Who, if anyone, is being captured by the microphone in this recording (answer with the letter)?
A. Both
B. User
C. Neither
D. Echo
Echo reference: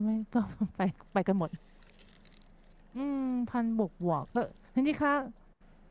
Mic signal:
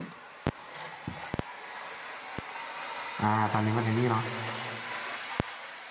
B